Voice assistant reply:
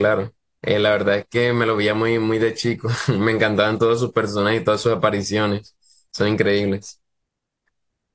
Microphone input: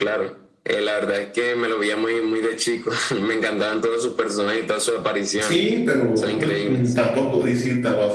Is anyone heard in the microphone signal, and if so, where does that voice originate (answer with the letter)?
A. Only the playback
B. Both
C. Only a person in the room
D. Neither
B